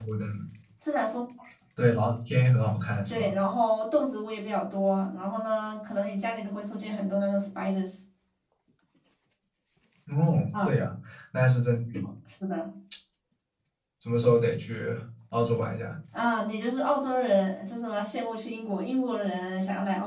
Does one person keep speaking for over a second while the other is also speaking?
No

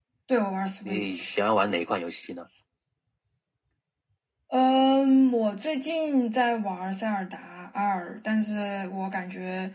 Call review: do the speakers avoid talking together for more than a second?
Yes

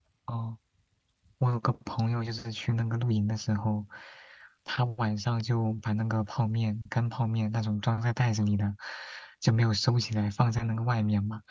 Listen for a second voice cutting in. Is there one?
No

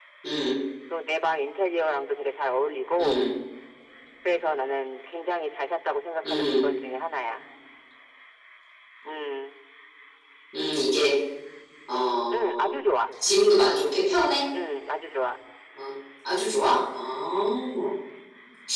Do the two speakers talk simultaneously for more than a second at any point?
No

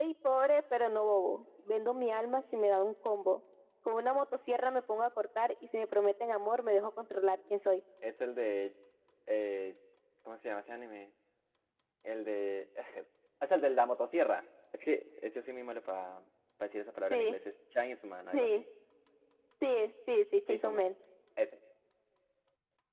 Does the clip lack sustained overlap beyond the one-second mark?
Yes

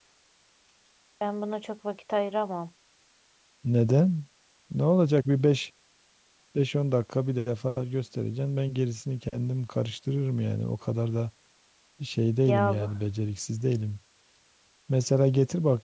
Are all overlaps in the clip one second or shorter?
Yes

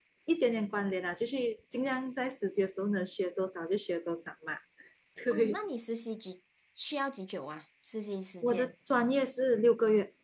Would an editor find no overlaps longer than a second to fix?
Yes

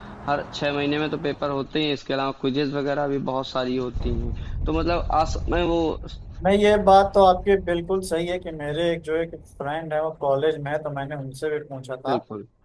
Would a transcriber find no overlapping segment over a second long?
Yes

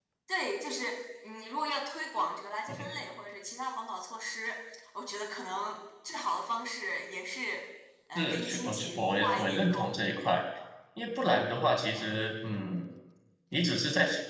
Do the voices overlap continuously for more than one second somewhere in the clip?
Yes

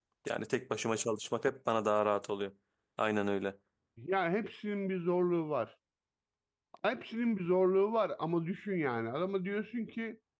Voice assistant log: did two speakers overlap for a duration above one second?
No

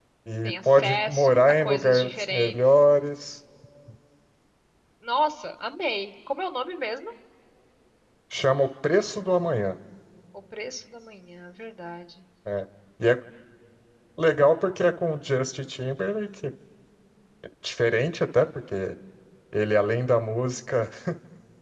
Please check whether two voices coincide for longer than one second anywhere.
Yes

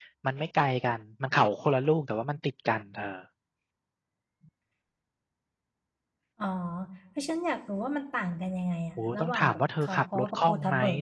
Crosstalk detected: Yes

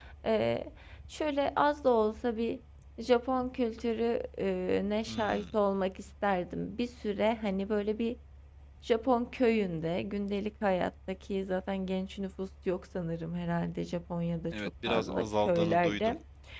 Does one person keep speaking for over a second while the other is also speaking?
Yes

